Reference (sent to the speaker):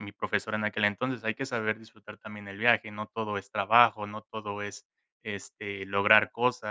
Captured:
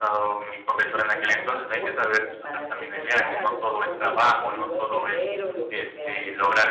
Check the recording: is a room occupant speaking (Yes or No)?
Yes